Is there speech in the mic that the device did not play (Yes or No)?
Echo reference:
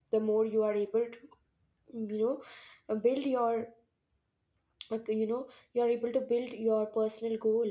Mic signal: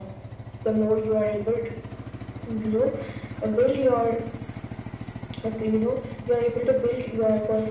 No